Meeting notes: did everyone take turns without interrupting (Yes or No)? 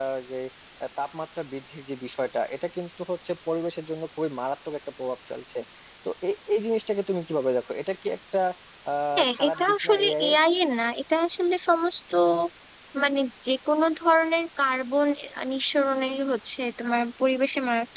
No